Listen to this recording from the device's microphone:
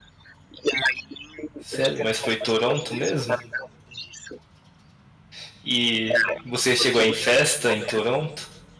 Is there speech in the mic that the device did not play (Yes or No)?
Yes